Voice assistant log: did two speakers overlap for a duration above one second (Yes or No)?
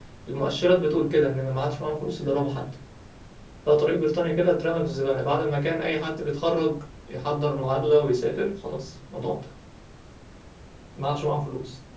No